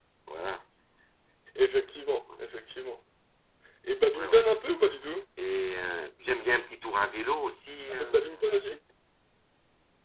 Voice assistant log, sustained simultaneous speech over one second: none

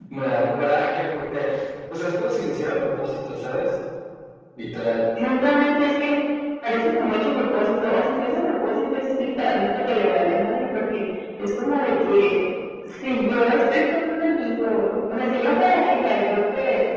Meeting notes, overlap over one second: none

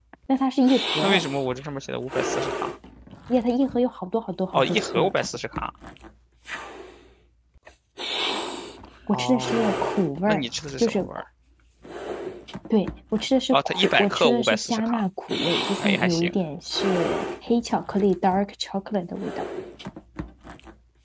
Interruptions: present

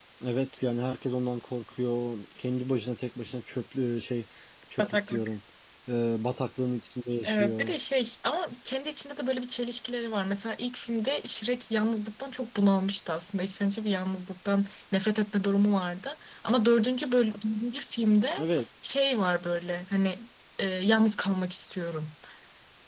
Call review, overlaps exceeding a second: none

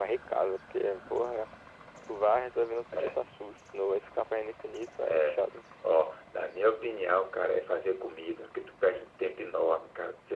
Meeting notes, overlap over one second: none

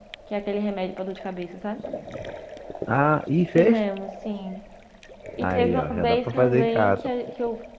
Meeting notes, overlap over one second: present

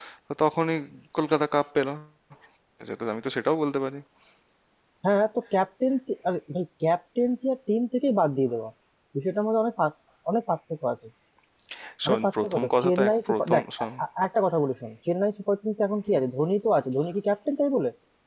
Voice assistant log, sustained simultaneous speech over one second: present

